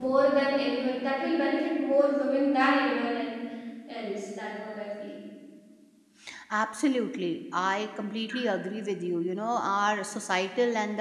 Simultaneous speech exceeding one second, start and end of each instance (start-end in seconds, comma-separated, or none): none